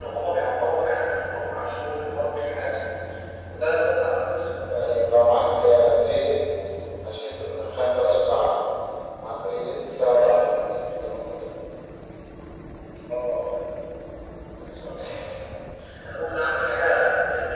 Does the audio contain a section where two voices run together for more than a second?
No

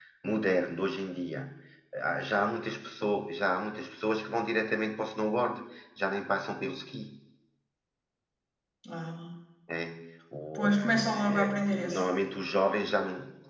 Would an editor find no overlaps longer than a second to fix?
No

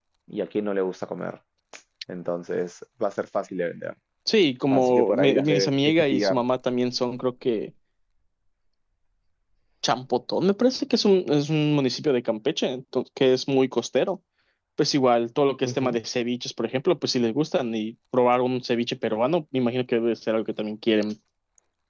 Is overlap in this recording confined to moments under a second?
No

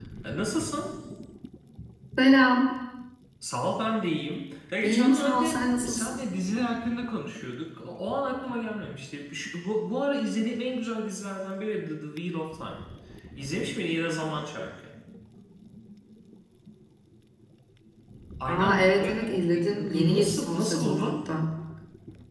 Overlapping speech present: Yes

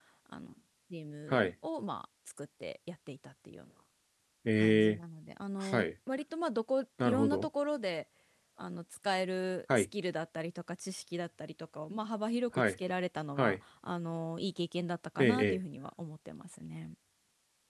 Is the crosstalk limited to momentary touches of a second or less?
Yes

